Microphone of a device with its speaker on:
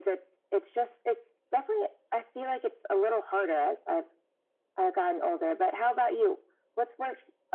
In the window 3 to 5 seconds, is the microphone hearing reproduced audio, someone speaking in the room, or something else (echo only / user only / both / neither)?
echo only